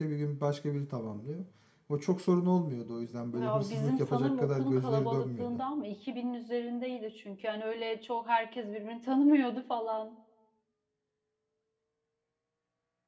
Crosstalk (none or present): present